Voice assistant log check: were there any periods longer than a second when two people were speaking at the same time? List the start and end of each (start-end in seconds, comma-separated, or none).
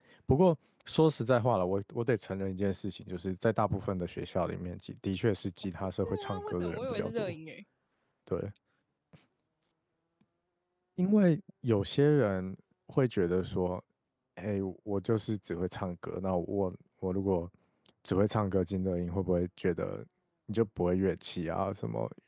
6.0-7.3